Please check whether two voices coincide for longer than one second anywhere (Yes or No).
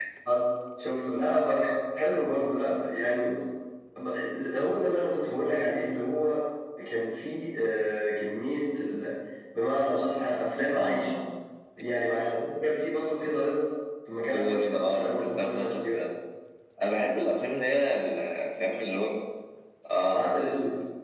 Yes